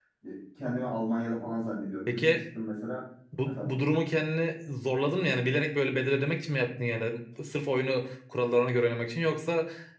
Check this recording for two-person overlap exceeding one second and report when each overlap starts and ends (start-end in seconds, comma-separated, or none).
none